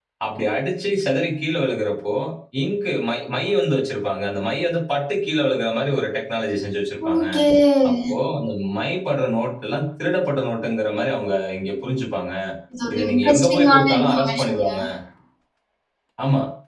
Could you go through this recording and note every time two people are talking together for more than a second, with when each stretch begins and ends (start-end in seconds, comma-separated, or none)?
12.9-14.7